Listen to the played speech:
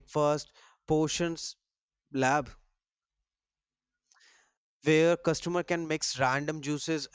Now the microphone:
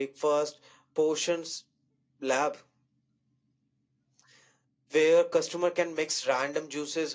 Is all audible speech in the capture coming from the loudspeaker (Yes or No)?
Yes